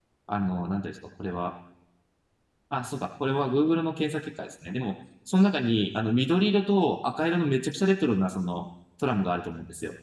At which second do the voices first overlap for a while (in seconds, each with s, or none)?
none